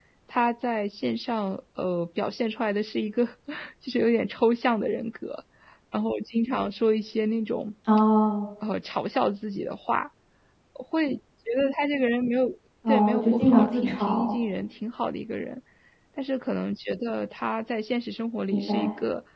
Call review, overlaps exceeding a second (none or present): present